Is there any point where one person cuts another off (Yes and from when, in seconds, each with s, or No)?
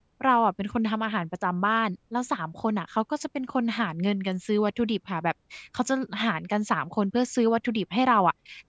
No